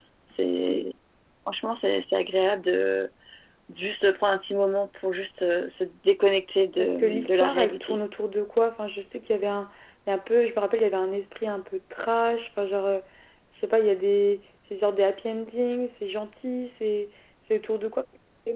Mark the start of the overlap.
7 s

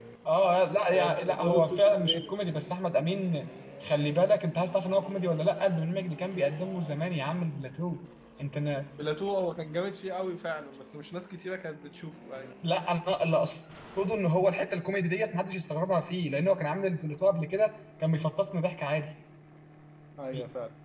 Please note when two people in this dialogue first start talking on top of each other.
1 s

